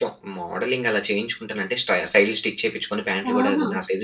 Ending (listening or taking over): listening